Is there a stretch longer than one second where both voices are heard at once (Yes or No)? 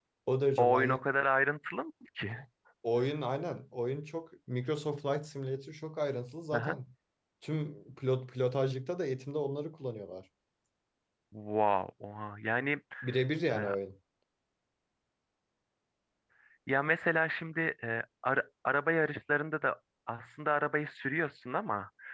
No